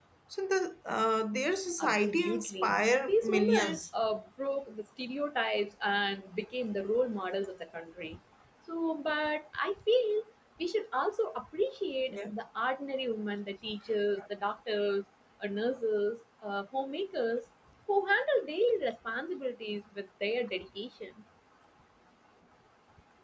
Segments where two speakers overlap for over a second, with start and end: 1.8-3.8

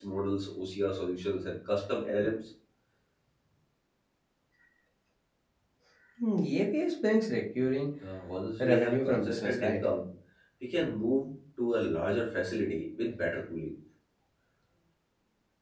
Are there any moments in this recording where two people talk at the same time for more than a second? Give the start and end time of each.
8.6-9.8

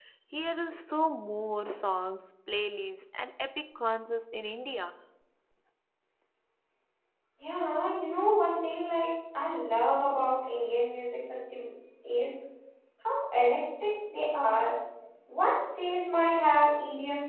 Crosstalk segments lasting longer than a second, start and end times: none

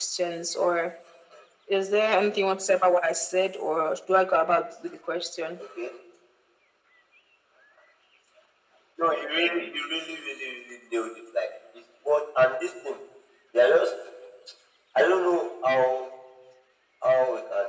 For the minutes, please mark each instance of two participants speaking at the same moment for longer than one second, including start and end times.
none

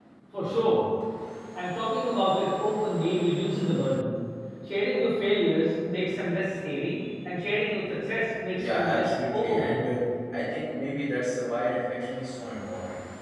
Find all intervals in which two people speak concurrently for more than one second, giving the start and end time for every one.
8.5-10.0

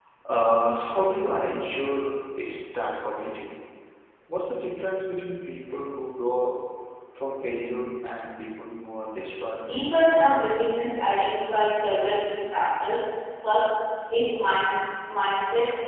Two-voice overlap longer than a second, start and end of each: none

